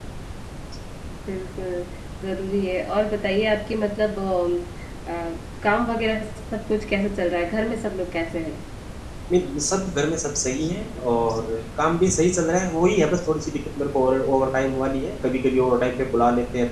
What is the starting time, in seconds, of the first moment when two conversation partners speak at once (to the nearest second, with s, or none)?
none